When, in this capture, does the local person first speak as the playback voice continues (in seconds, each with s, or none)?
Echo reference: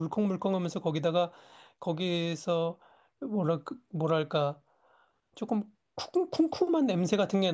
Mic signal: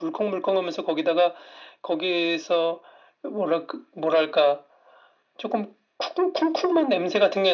none